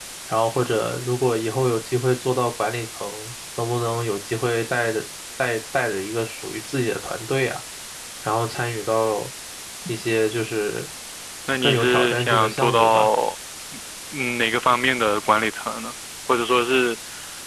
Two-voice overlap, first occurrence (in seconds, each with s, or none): 11.6 s